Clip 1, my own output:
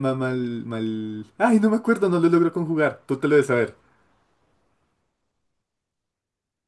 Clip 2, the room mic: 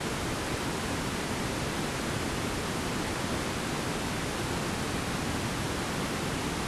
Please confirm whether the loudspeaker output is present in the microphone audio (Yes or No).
No